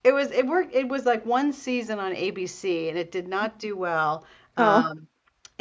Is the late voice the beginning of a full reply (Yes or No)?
No